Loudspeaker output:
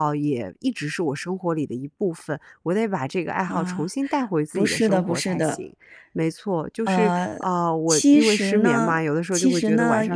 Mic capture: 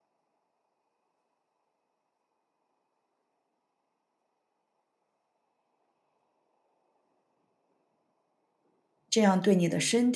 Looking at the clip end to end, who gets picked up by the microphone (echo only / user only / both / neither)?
user only